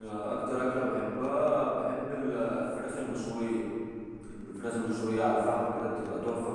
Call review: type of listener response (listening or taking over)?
listening